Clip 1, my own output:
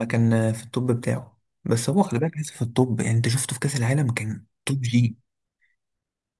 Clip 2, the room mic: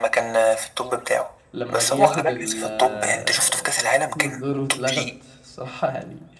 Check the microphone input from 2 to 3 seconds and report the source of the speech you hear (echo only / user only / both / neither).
both